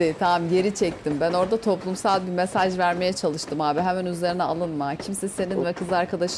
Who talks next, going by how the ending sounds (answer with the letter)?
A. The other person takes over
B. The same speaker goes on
B